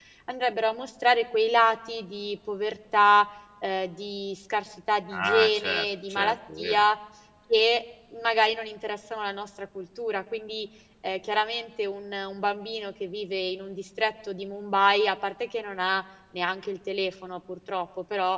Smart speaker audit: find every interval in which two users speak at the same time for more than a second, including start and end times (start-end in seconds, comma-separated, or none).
5.1-6.8